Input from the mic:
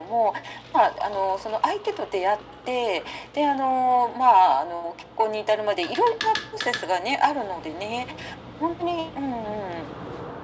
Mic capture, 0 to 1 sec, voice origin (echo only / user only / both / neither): echo only